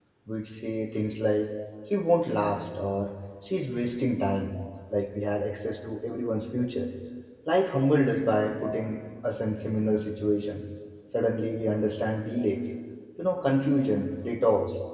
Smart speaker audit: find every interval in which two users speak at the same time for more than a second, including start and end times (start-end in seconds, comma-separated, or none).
none